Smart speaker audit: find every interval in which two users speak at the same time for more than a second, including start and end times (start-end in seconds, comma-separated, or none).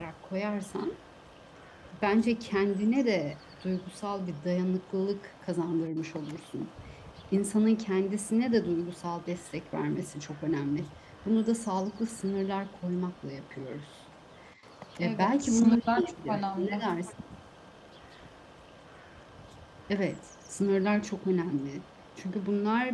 15.0-16.8